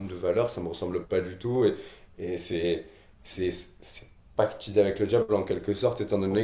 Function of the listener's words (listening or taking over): listening